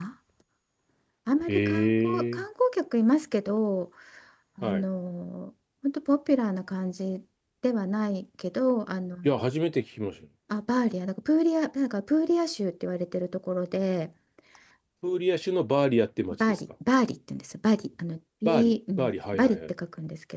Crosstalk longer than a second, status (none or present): present